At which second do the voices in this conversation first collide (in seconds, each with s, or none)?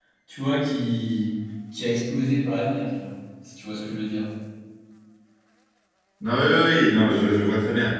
none